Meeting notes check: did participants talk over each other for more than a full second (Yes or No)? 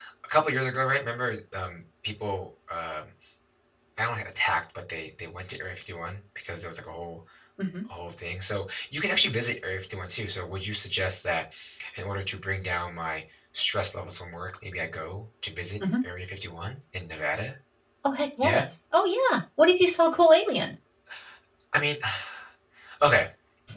No